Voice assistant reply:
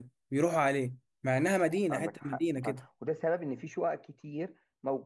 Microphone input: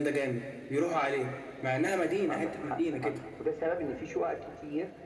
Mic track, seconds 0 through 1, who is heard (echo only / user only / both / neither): echo only